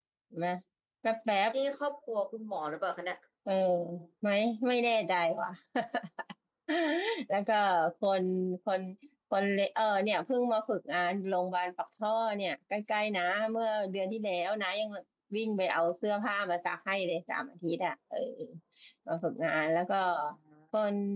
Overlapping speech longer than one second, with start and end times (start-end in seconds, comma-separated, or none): none